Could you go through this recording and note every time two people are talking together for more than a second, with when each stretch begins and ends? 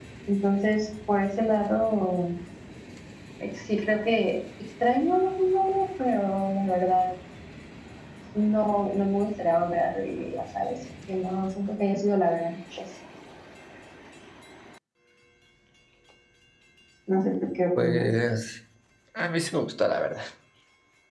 none

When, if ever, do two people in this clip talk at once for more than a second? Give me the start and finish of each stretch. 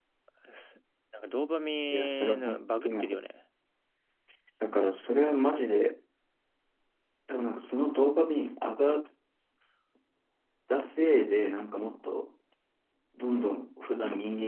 1.9-3.2

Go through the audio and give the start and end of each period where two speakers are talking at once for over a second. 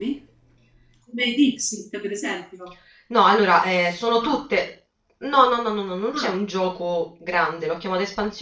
none

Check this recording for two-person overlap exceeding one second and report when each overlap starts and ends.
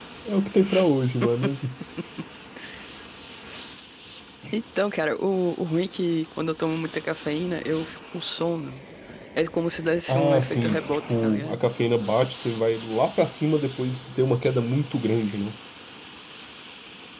10.1-11.6

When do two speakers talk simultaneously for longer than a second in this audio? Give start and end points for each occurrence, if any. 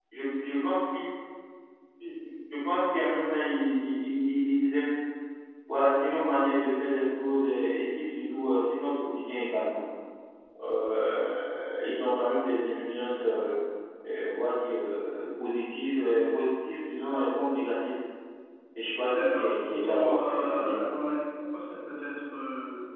19.1-20.8

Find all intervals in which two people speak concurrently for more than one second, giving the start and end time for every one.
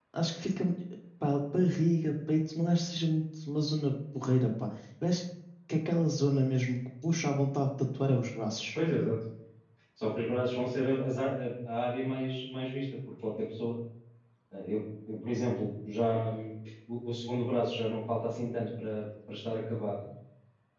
none

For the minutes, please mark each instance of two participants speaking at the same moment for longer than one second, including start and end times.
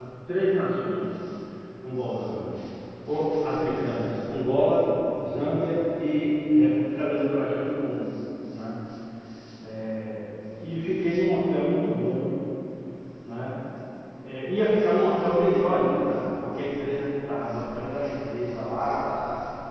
none

